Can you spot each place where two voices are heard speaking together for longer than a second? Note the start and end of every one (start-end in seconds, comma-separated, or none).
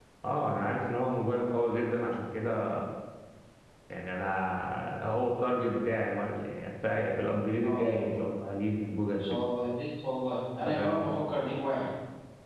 none